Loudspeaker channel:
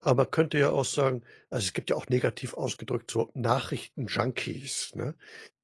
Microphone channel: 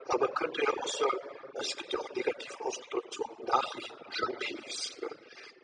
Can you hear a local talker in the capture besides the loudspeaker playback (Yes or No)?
No